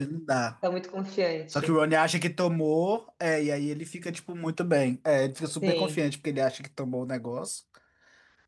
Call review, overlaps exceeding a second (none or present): none